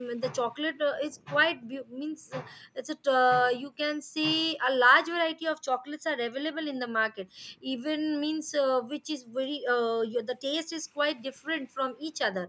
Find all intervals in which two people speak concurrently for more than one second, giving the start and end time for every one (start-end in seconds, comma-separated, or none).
none